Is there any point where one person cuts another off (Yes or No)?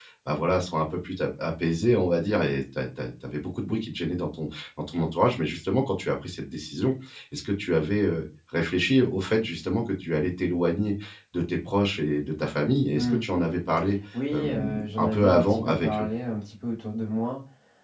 Yes